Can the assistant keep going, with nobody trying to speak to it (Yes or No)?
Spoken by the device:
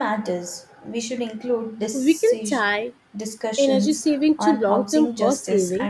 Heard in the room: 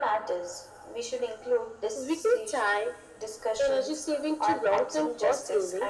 Yes